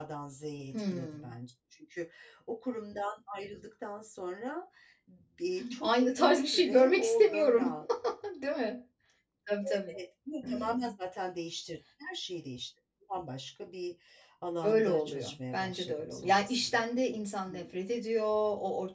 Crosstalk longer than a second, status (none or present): present